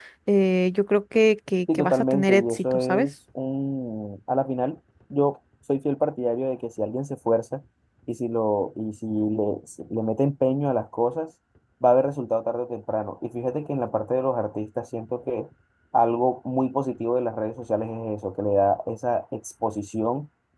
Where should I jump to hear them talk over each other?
2 s

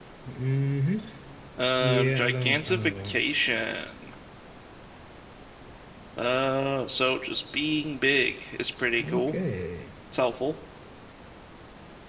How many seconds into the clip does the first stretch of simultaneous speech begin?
2 s

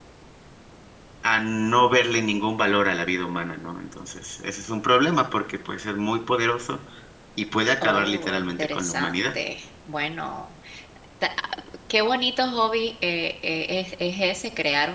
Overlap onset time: 8 s

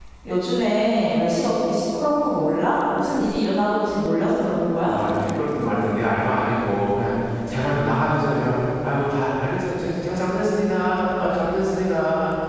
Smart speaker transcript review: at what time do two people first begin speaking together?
none

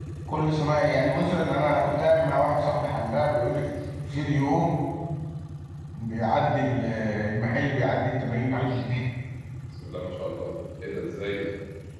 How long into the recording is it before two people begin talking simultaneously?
none

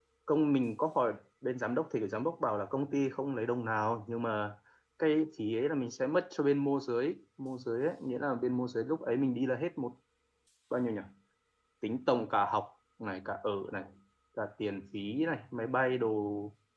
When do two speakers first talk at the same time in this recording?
none

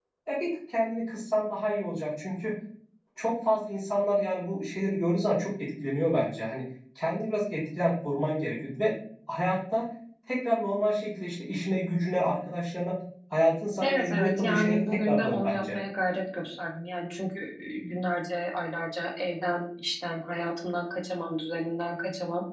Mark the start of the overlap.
14 s

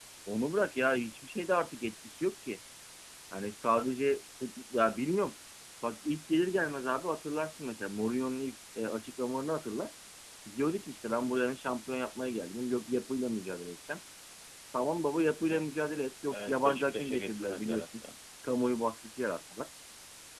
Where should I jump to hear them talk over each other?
16 s

